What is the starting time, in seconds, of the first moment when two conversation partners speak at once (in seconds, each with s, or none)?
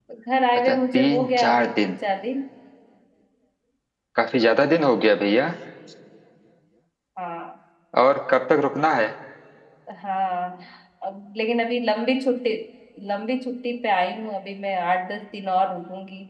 0.7 s